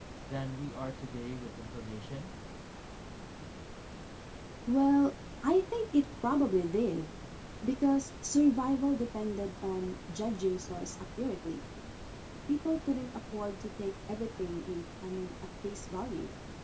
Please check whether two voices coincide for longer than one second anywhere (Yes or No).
No